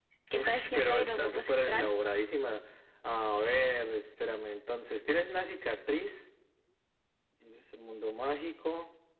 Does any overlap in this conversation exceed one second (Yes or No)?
Yes